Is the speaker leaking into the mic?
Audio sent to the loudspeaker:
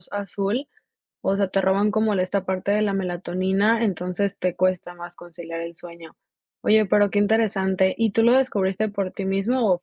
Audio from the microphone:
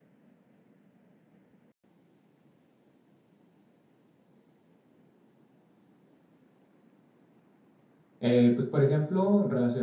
No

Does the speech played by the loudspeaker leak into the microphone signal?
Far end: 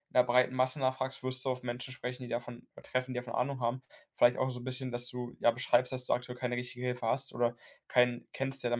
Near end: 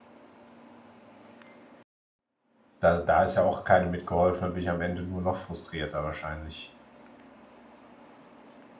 No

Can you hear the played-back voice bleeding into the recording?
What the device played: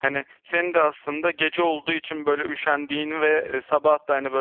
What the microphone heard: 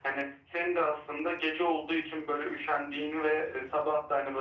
Yes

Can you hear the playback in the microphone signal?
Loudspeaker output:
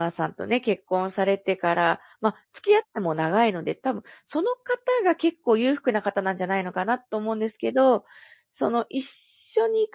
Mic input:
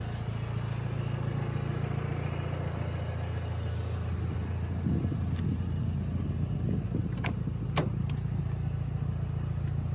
No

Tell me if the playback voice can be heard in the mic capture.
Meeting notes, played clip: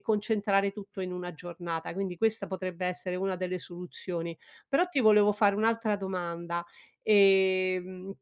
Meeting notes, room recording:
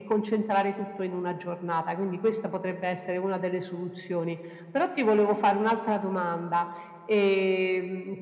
Yes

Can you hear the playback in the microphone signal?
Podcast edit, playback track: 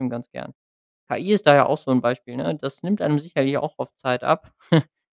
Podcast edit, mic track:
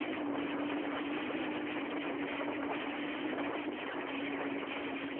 No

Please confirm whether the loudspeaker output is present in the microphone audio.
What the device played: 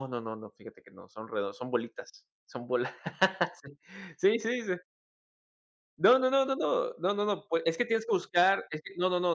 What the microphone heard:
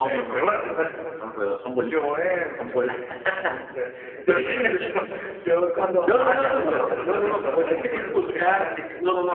Yes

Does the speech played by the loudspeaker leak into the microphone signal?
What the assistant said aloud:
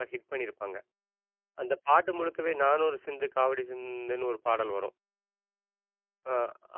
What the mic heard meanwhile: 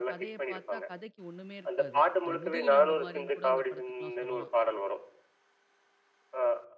Yes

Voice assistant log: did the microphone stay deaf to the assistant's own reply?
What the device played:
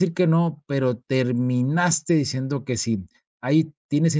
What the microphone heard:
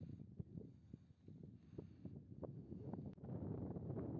Yes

